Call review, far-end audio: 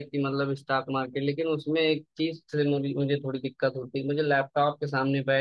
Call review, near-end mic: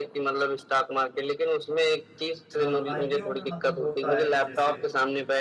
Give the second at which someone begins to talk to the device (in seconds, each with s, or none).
2.6 s